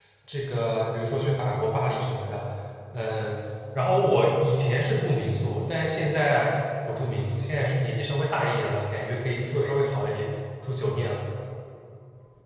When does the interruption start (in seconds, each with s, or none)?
none